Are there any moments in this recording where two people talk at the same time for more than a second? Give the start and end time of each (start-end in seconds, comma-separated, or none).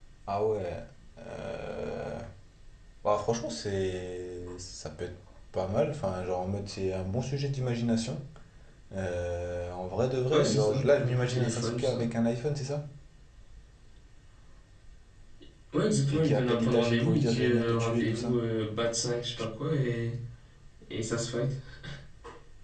10.3-12.0, 16.1-18.4